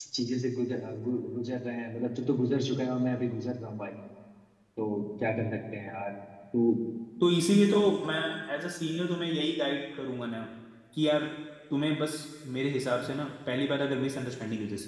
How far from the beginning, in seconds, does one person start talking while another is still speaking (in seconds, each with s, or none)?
none